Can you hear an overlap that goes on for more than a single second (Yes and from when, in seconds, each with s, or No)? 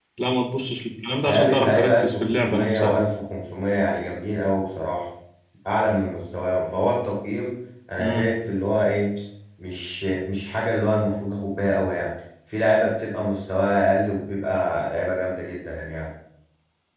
Yes, from 1.3 s